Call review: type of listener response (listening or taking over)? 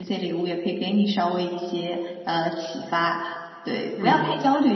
listening